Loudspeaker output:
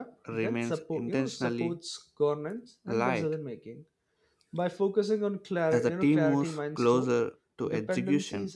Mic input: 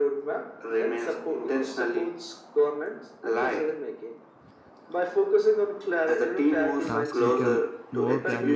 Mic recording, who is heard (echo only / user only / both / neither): both